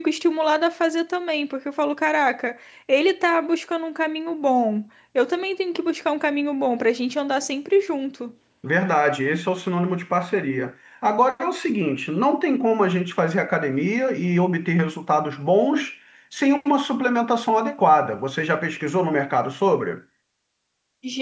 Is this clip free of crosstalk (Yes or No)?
Yes